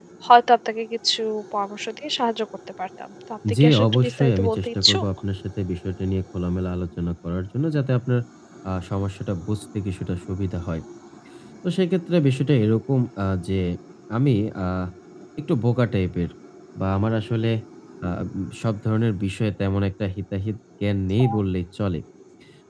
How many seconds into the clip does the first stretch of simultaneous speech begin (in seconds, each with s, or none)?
3.4 s